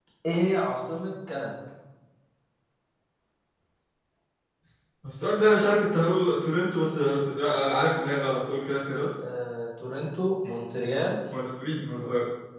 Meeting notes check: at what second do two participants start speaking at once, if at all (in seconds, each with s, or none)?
none